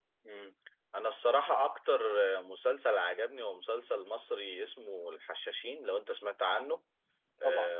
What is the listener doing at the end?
listening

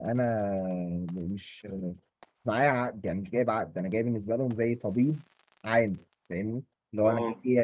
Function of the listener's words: listening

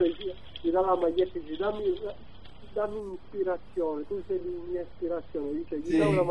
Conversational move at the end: listening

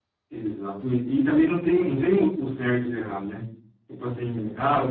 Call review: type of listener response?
listening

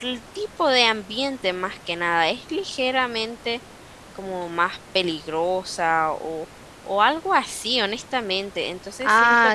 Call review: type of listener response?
taking over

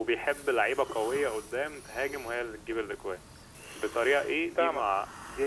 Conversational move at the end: listening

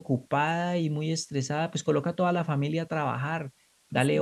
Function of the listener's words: listening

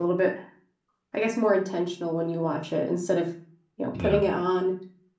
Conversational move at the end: listening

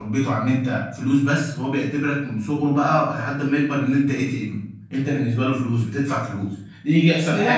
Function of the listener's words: listening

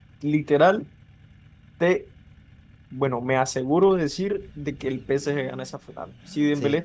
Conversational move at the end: listening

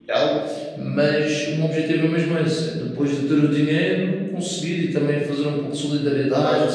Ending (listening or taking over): taking over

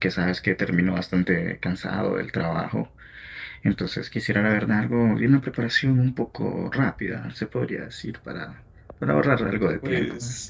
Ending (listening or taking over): taking over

